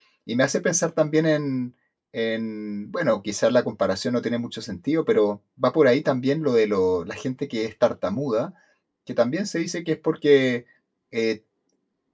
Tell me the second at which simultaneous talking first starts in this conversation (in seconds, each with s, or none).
none